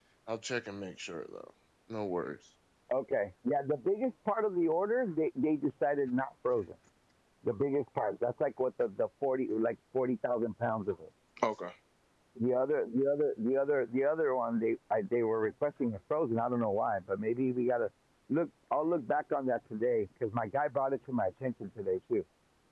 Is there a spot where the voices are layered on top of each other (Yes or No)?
No